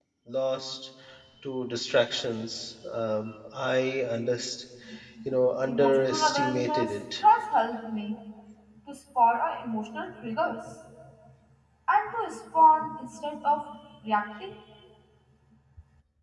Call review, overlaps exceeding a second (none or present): present